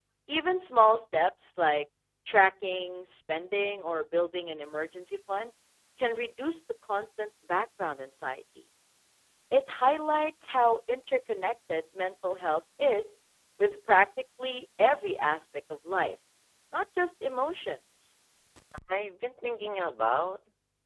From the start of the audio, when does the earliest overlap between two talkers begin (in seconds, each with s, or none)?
none